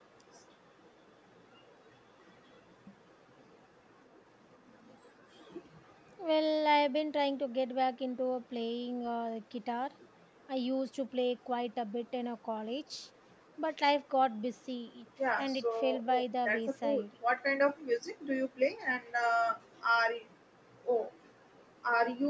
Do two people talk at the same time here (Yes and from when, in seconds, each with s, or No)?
Yes, from 15.2 s